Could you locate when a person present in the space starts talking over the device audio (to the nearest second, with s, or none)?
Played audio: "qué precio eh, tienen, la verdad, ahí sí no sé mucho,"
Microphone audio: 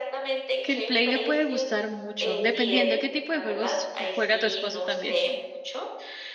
1 s